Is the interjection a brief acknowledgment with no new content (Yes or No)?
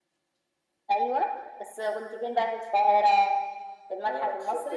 No